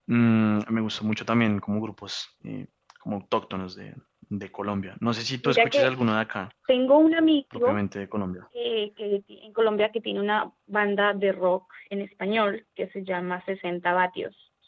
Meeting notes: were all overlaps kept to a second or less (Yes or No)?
Yes